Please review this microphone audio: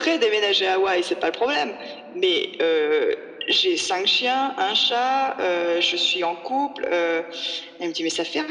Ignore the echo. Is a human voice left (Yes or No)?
No